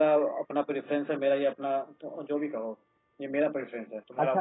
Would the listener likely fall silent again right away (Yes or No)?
No